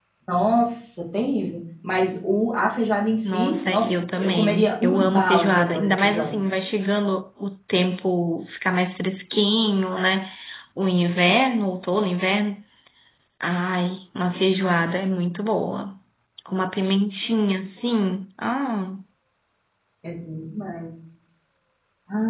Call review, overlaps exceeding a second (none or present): present